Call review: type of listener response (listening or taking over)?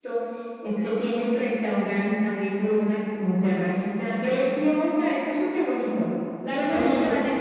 listening